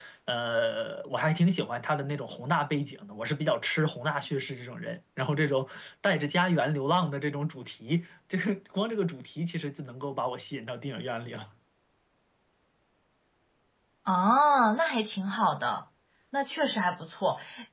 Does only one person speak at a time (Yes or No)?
Yes